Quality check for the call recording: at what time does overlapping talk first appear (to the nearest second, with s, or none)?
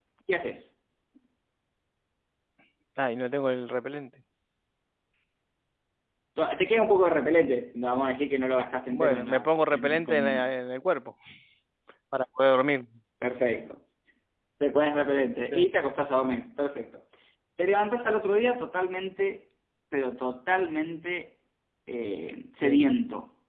9 s